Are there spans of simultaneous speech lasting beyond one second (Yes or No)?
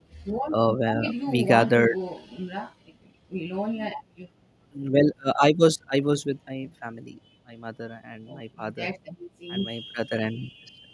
Yes